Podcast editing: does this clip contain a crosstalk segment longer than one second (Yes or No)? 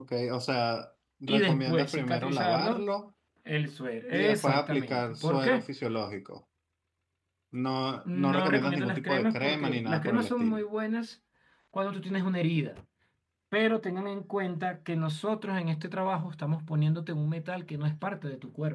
Yes